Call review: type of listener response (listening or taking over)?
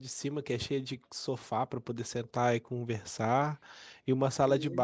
listening